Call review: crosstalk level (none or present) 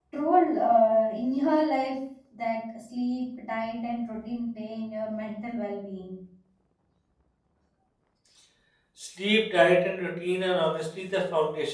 none